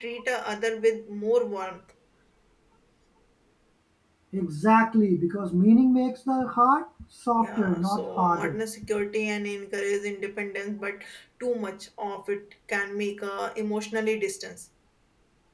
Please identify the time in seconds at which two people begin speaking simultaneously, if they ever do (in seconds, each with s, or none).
7.4 s